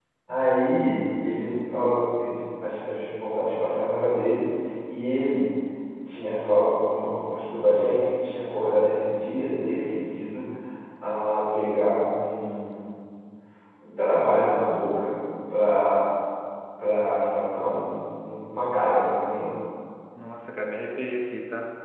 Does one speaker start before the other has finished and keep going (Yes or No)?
No